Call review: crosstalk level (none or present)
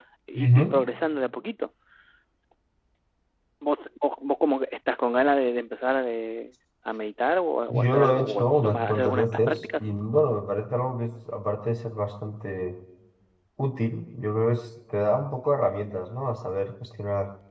present